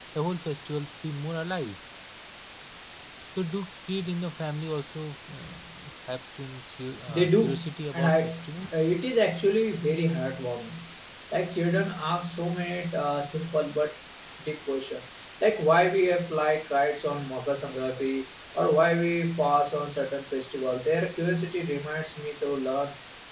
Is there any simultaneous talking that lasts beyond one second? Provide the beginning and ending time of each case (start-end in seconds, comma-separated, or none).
7.1-8.7